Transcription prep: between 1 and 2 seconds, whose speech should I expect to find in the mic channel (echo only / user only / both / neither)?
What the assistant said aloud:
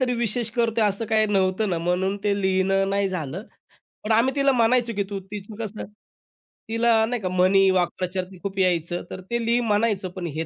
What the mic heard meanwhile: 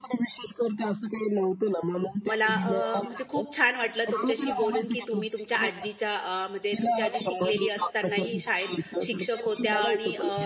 echo only